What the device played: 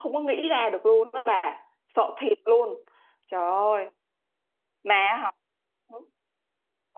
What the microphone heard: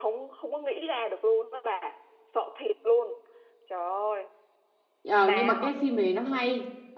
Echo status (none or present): present